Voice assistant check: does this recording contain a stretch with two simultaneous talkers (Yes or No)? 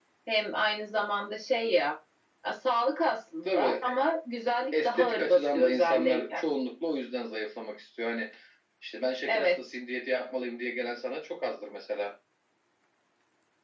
Yes